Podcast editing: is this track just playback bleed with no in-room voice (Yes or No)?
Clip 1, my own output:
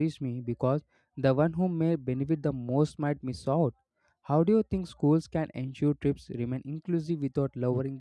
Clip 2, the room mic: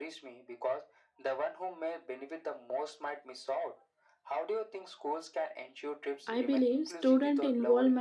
No